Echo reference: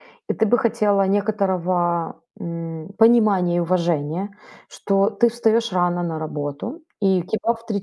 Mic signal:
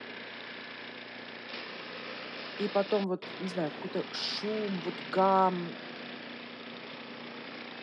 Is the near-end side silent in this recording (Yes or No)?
No